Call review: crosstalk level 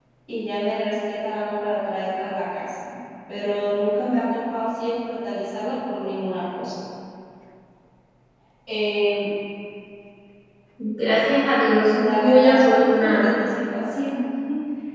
present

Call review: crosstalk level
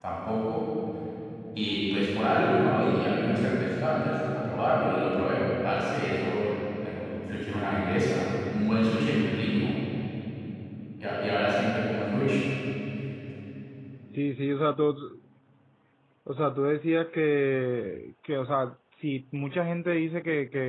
none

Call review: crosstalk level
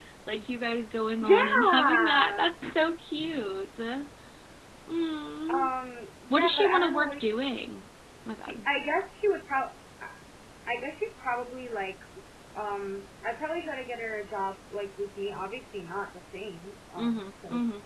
present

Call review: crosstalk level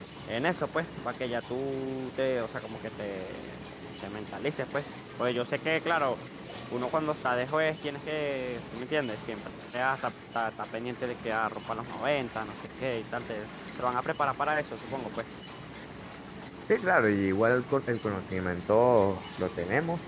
none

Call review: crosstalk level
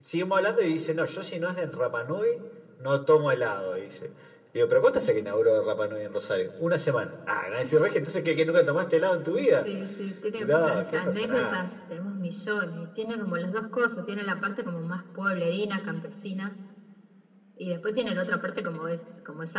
present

